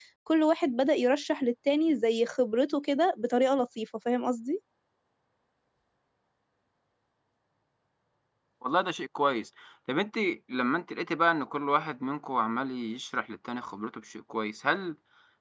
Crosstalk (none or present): none